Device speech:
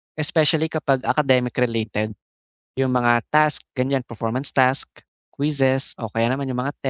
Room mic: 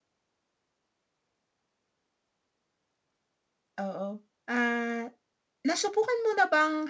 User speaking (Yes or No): Yes